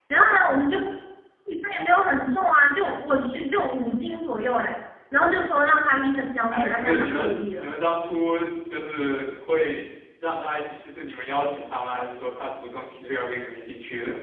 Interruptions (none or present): present